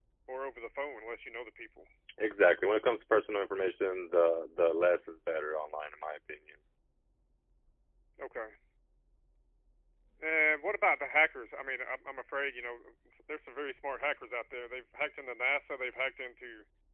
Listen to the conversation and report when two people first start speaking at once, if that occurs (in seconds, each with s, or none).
none